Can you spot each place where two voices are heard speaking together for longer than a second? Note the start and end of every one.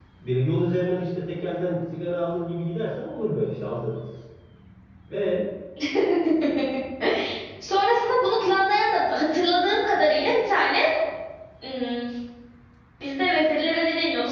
none

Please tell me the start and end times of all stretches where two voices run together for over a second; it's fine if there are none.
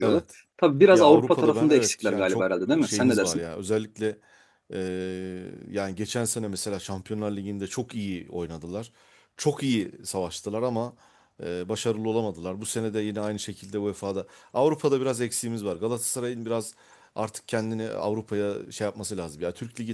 0.9-3.4

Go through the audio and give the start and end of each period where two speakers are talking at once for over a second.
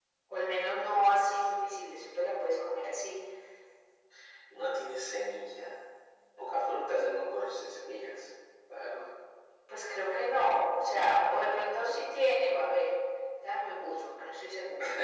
0.6-1.8

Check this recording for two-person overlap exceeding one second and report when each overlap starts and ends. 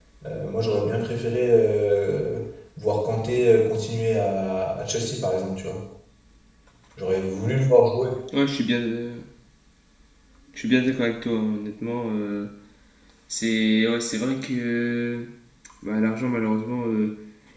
none

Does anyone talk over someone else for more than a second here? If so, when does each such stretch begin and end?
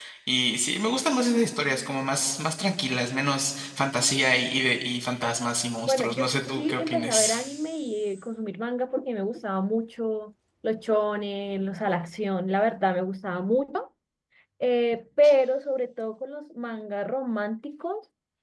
5.8-7.4

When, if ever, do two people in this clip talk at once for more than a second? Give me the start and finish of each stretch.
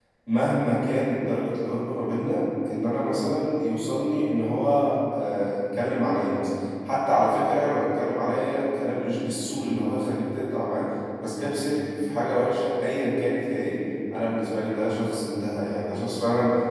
none

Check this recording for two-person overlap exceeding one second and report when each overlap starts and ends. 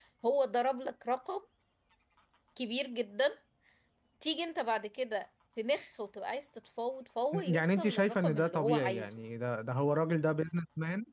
7.3-9.2

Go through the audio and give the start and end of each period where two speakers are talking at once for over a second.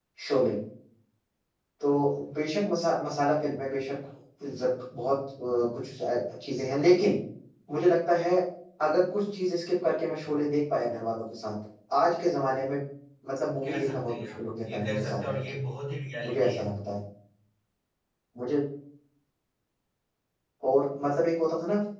13.6-15.6

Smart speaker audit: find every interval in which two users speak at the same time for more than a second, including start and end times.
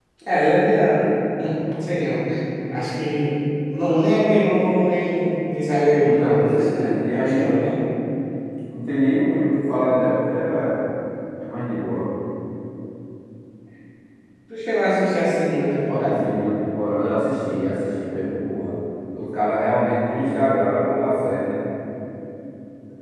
6.0-7.6

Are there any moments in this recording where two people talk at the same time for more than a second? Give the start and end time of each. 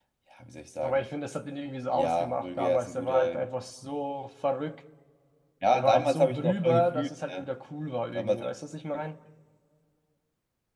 1.9-3.4, 5.7-7.5

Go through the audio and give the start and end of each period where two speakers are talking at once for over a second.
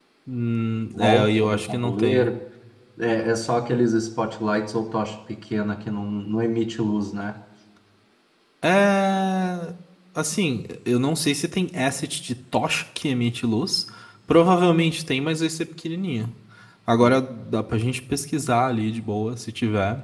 0.9-2.3

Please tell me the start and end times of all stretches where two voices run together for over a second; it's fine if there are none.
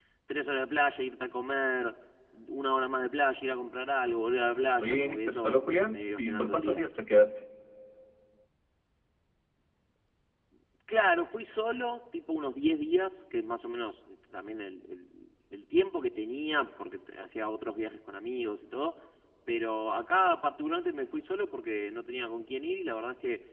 4.8-6.8

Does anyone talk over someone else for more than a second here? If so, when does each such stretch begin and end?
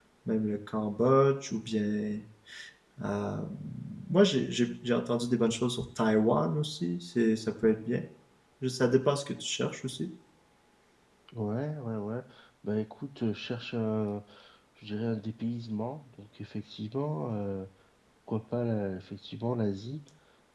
none

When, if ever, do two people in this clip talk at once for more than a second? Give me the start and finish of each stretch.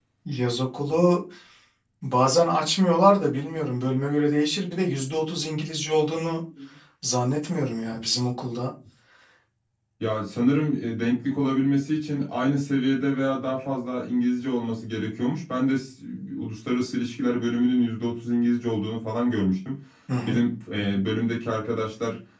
none

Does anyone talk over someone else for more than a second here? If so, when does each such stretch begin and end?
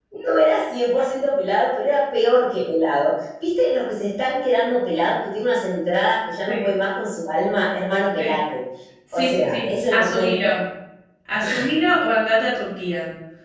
9.2-10.6

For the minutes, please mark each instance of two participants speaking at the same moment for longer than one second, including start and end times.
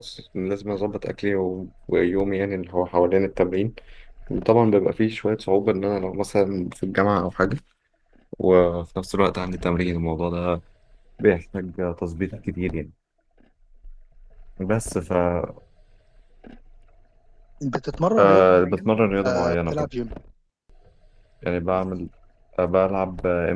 18.2-19.9

